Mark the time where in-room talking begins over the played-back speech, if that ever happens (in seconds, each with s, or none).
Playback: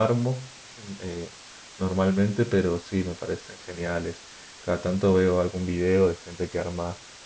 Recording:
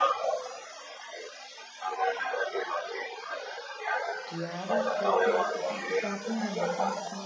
4.2 s